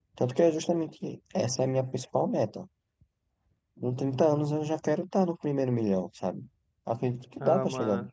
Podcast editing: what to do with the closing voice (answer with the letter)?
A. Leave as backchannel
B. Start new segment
B